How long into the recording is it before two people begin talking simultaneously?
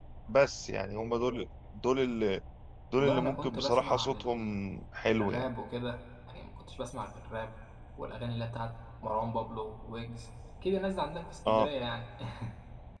3 s

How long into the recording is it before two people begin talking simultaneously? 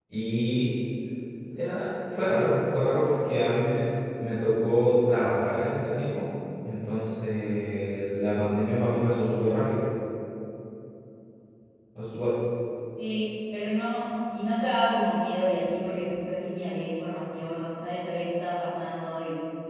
none

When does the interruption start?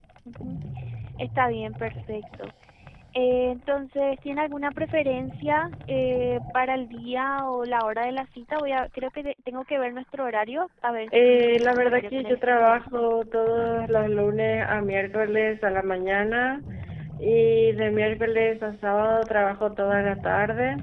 11 s

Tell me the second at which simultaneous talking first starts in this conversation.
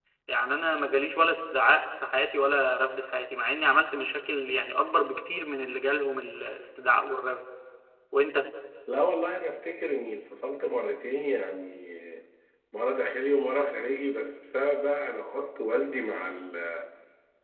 none

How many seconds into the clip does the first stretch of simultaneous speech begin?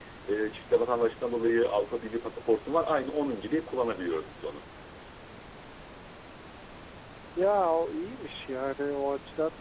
none

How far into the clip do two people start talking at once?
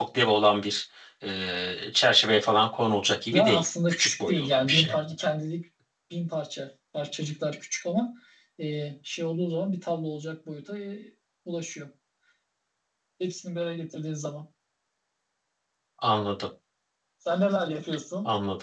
3 s

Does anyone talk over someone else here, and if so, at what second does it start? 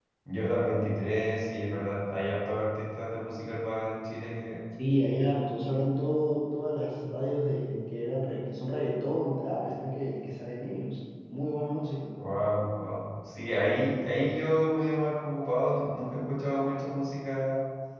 none

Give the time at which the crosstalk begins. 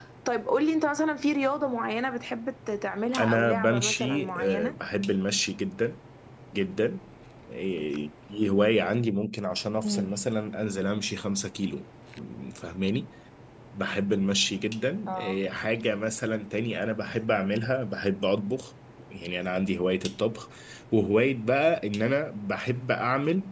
3 s

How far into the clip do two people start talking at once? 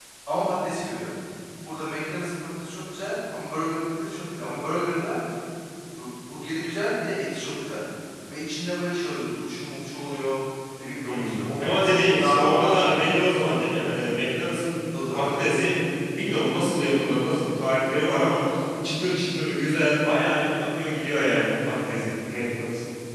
11 s

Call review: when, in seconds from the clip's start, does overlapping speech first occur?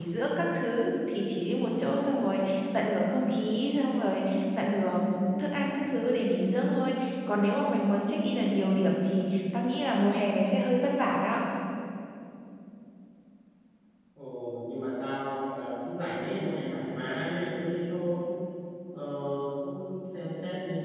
none

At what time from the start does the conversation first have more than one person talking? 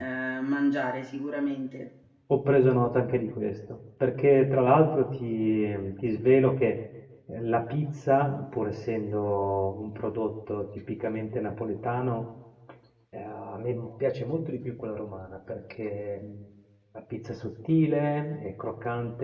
none

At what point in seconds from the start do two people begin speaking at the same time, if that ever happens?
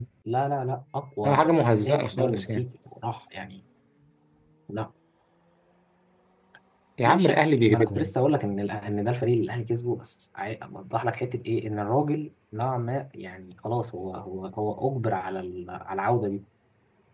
1 s

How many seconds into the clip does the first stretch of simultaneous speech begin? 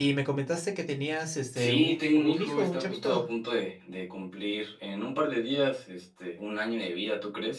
2 s

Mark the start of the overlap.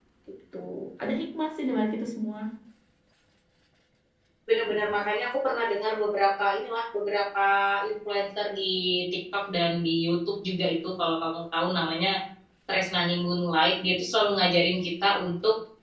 none

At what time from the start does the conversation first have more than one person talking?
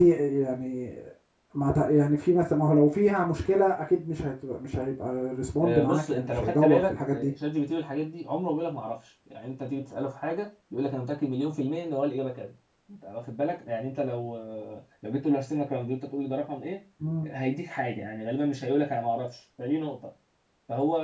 6 s

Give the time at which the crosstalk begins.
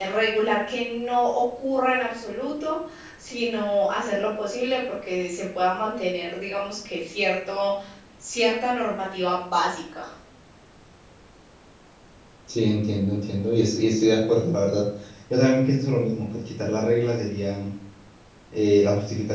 none

